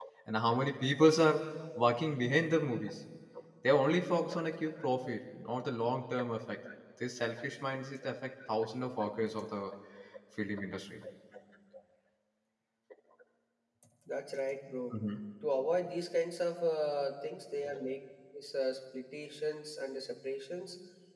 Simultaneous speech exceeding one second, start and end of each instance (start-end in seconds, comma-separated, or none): none